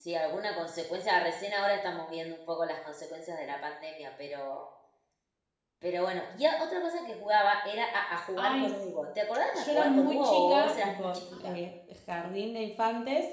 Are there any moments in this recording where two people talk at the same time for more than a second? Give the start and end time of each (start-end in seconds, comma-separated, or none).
9.5-11.5